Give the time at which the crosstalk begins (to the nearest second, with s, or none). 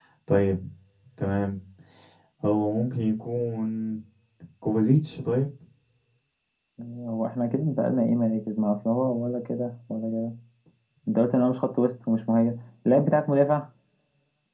none